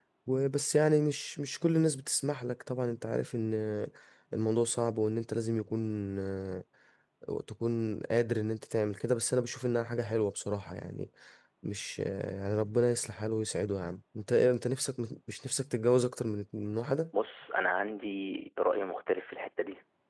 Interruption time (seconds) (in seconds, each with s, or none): none